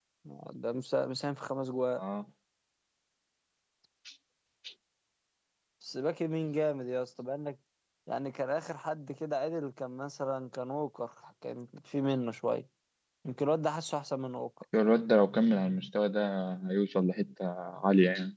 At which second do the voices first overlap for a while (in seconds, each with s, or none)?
none